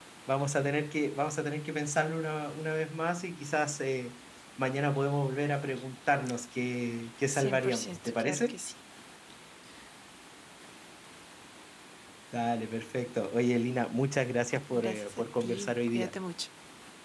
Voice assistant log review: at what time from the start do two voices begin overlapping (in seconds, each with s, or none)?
7.3 s